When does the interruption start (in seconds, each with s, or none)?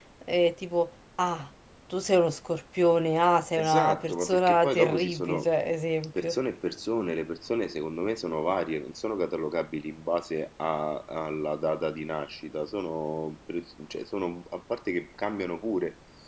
3.6 s